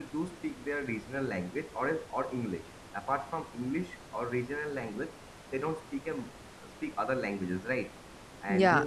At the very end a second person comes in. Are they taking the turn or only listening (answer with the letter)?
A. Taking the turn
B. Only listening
A